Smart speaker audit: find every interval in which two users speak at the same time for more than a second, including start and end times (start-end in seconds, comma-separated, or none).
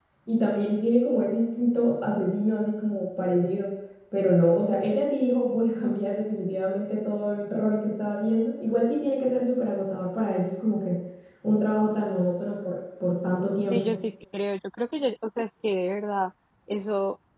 none